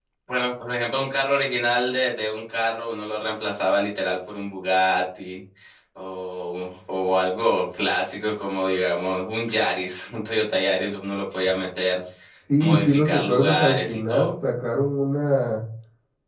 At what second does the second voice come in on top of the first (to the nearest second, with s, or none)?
13 s